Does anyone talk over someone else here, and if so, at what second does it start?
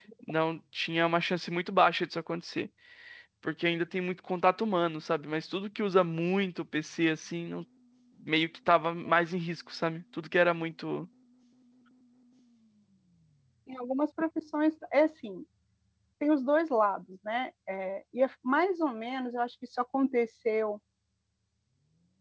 none

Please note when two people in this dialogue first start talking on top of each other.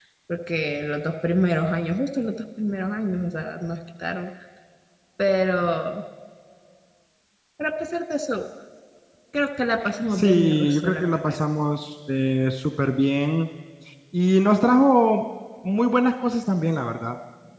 10 s

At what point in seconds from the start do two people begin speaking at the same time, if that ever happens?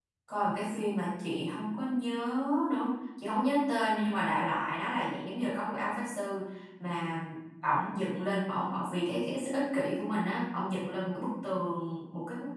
none

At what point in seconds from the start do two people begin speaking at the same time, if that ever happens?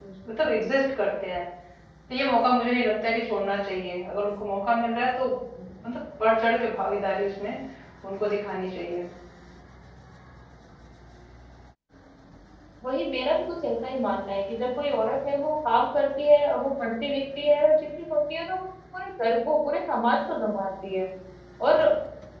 none

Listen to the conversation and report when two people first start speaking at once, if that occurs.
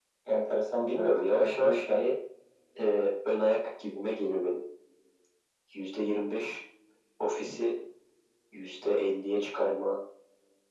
1 s

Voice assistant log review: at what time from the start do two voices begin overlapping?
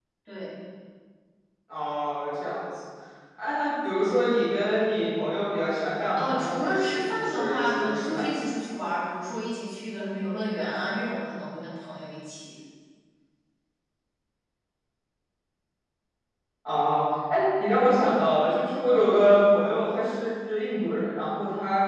6 s

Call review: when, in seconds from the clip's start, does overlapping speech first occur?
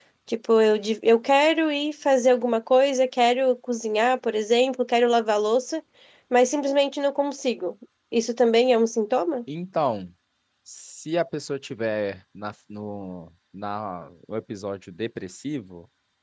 none

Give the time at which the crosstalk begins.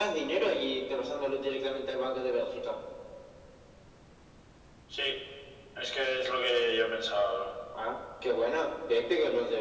none

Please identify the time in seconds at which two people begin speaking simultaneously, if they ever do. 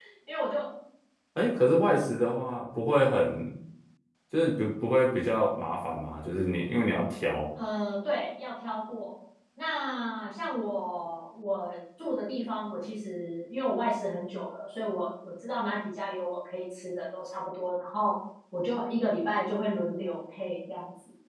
none

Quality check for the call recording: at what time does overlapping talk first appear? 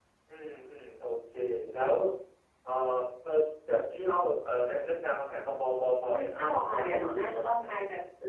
6 s

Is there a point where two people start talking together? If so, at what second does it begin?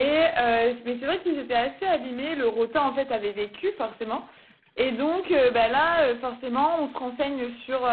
none

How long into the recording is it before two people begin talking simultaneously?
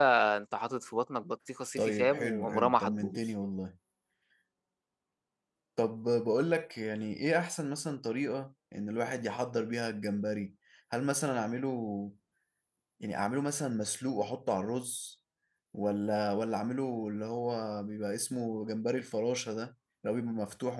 2 s

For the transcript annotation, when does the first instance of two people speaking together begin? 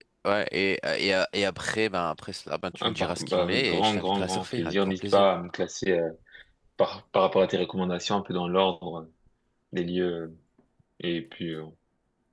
3 s

